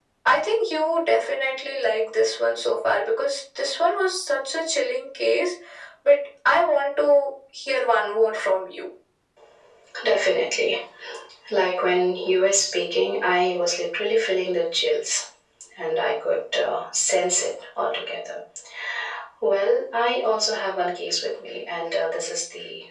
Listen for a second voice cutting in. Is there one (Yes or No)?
No